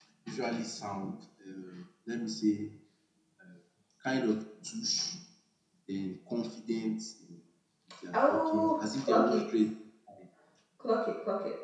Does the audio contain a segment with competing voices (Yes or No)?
Yes